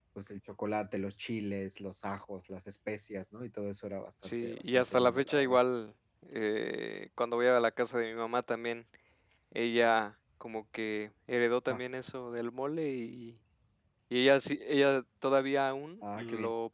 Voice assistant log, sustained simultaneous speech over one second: present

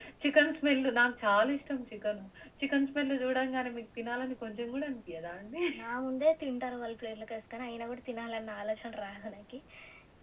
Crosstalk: none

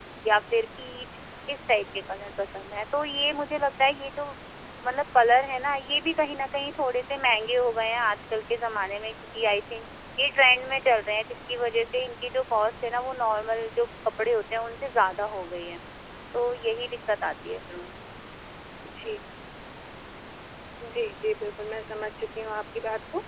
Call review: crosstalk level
none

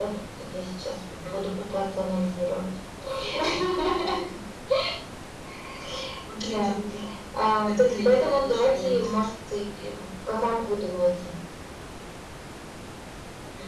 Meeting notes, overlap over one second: present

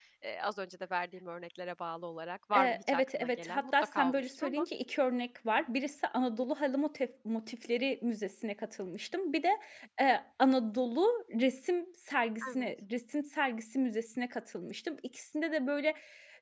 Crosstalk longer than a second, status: present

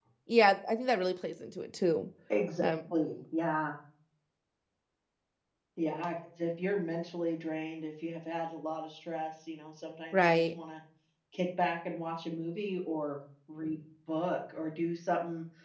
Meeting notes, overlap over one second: none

